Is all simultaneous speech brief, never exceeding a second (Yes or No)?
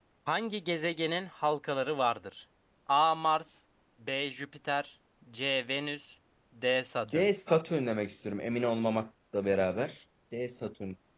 Yes